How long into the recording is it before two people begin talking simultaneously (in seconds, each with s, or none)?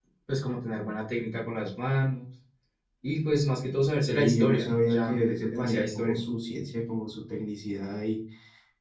4.1 s